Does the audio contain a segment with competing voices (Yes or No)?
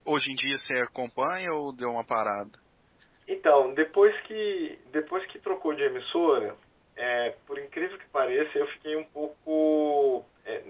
No